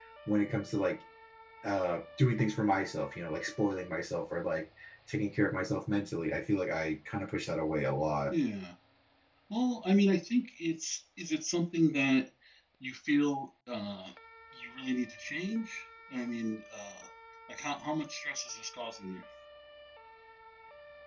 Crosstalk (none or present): none